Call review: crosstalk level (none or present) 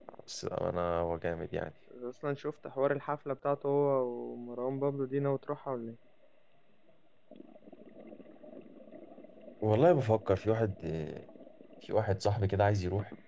none